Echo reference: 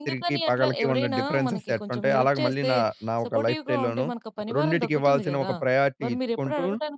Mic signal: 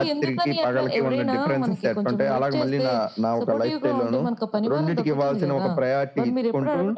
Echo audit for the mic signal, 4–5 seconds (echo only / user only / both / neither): echo only